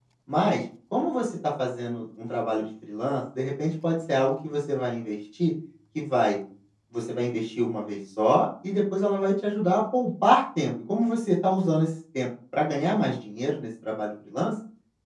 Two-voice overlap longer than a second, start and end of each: none

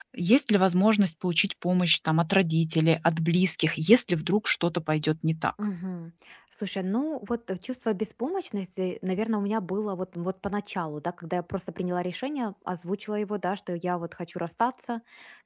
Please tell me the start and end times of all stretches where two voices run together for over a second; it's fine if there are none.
none

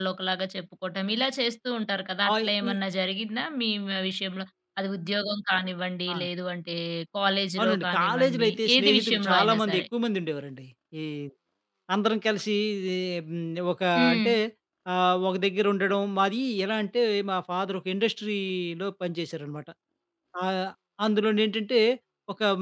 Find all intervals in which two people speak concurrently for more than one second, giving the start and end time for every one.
7.6-9.8

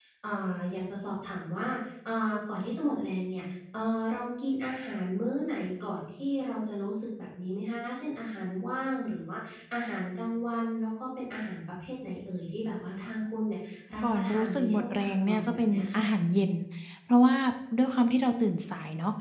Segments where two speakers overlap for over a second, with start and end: 14.1-16.1

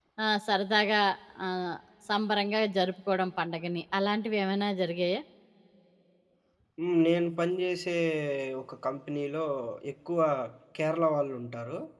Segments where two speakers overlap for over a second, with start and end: none

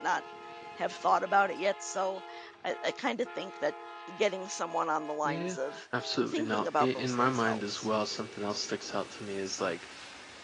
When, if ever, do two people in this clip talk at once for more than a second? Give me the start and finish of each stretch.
6.2-7.9

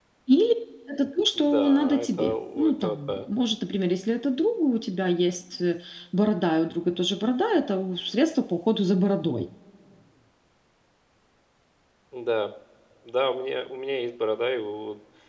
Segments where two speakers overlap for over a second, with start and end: 1.4-3.2

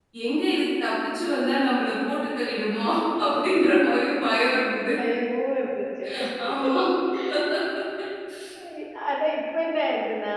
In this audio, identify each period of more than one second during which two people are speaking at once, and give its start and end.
none

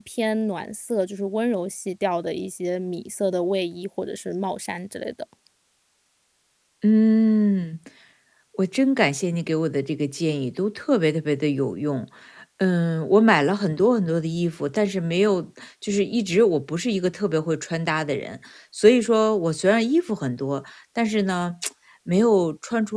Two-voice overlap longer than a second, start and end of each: none

